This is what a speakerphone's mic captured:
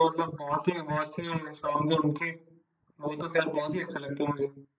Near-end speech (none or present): none